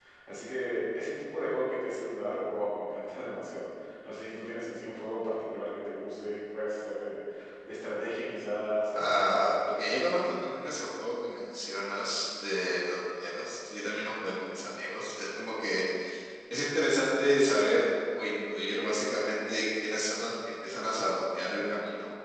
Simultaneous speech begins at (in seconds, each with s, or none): 9.0 s